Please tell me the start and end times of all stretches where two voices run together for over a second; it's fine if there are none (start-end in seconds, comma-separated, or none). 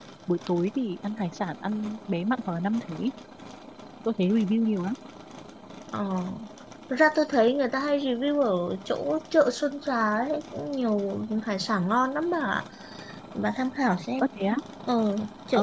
none